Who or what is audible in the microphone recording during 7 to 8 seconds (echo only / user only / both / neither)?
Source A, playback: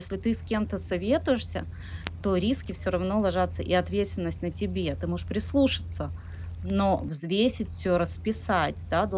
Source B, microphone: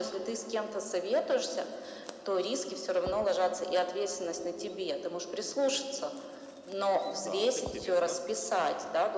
both